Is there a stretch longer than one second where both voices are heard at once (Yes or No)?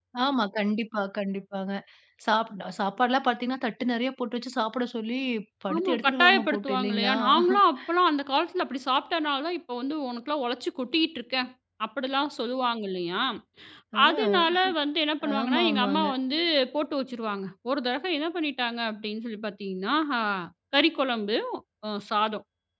Yes